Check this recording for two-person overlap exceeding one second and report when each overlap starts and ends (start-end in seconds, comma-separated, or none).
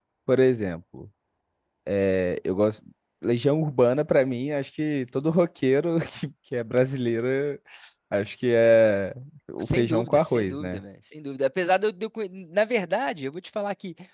9.6-10.8